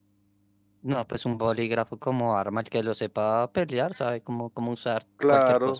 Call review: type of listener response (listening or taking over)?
taking over